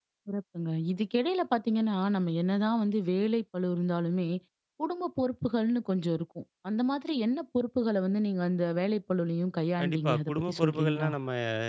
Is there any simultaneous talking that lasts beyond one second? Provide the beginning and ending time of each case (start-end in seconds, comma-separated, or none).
9.8-11.1